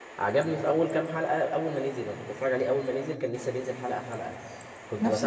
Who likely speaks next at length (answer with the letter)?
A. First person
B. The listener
A